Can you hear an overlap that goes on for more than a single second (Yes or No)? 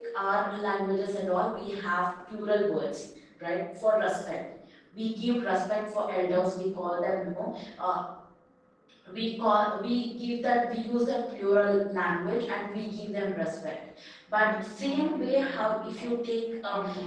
Yes